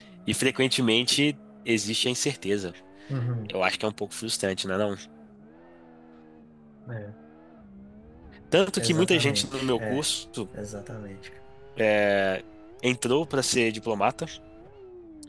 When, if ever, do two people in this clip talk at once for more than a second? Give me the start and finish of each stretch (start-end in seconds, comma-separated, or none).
8.8-10.0